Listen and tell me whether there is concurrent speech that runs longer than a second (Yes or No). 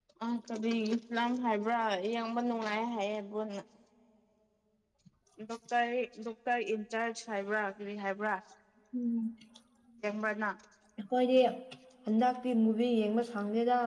No